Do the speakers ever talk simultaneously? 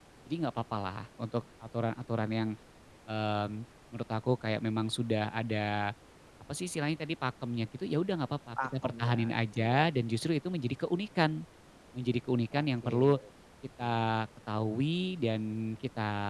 Yes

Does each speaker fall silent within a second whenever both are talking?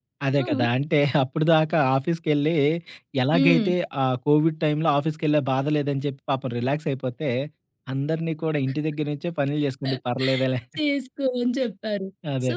Yes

